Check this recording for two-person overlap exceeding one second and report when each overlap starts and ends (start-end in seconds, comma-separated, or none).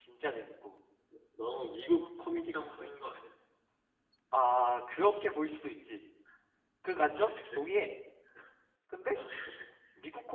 none